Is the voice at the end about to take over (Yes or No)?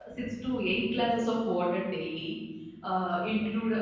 No